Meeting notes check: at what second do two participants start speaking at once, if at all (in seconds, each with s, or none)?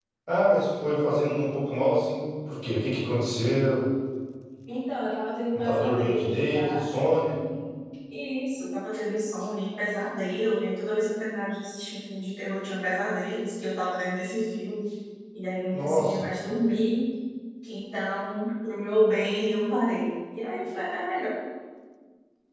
5.5 s